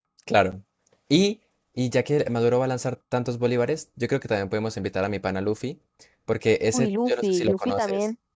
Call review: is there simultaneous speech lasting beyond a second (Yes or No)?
Yes